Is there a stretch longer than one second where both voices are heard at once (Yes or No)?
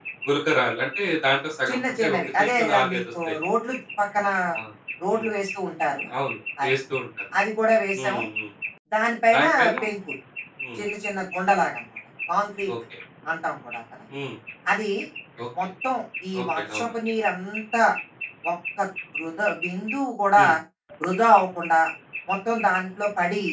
Yes